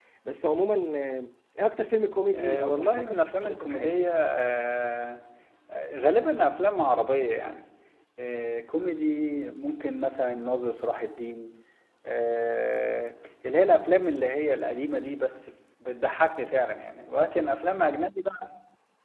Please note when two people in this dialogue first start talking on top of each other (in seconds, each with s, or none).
2.3 s